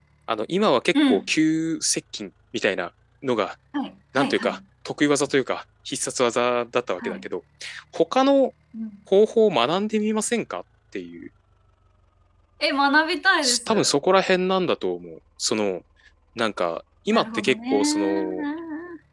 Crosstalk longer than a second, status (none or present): present